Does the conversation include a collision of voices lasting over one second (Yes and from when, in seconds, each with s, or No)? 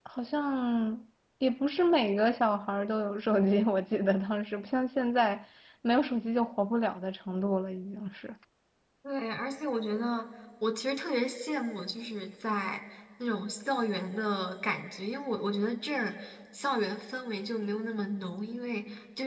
No